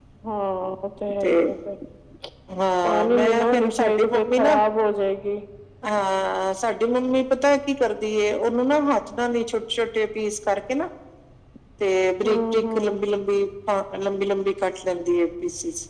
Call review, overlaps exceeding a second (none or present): present